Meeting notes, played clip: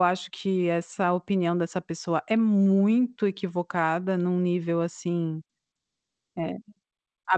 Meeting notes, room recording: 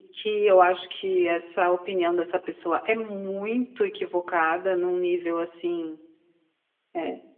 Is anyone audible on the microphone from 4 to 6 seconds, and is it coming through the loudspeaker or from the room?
echo only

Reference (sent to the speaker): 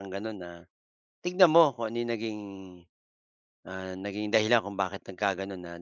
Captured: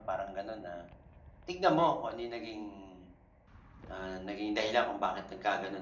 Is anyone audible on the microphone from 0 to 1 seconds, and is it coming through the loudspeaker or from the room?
echo only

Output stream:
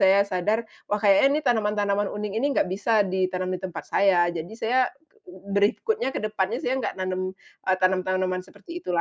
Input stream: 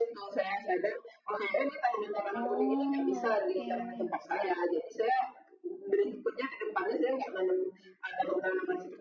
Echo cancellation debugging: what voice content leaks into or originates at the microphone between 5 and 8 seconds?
echo only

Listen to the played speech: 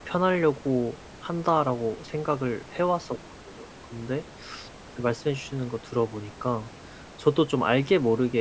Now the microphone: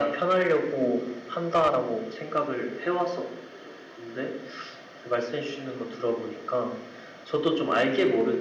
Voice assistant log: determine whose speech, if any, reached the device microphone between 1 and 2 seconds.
echo only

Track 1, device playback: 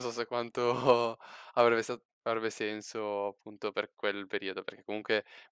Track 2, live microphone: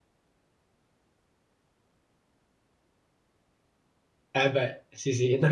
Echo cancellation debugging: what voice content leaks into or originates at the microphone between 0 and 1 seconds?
neither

